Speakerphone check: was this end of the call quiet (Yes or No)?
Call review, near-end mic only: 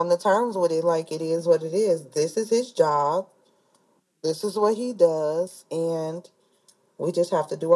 Yes